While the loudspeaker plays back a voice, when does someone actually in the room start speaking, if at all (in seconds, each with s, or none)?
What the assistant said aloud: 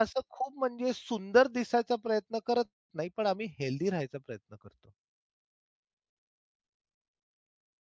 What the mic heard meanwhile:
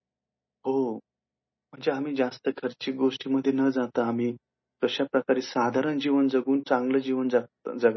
0.6 s